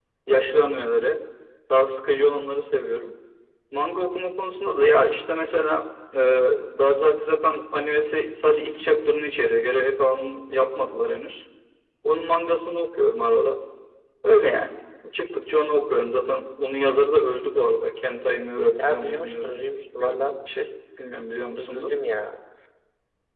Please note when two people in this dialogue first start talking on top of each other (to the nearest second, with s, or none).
19 s